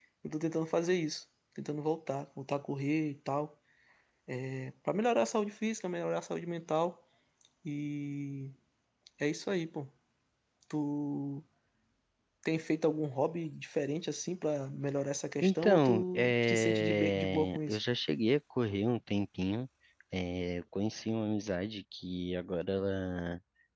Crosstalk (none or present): present